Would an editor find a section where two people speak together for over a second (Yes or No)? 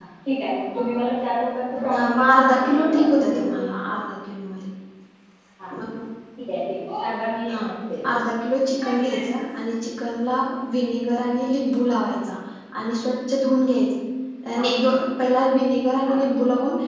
Yes